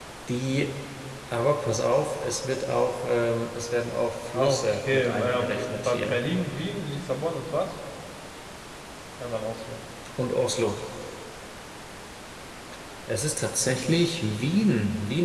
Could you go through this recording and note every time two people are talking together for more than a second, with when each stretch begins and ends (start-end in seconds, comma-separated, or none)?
4.3-6.2